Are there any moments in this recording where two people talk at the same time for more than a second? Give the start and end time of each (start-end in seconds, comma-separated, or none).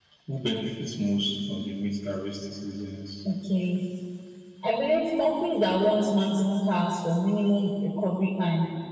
none